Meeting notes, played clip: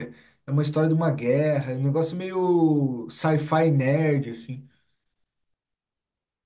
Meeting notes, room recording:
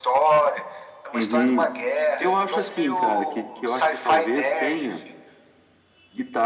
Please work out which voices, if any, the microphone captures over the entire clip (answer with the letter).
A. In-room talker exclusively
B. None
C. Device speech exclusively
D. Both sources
D